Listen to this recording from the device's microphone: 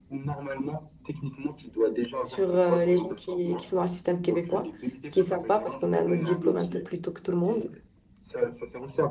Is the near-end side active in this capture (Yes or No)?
Yes